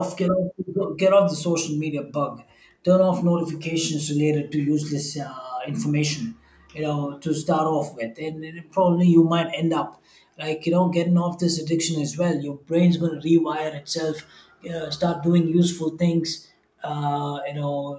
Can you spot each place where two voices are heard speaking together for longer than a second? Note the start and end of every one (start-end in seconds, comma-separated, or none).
none